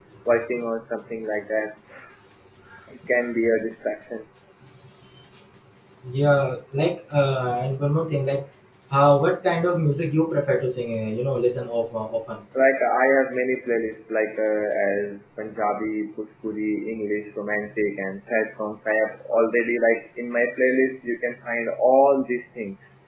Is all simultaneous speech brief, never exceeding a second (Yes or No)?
Yes